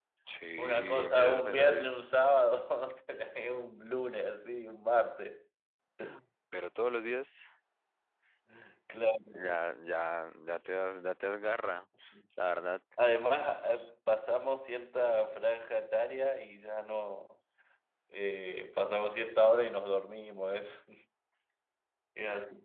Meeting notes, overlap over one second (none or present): present